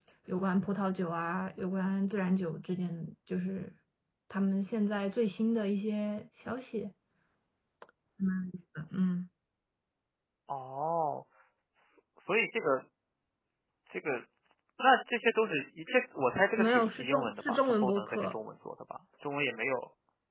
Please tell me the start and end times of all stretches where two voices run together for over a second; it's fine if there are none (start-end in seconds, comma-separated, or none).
16.6-18.3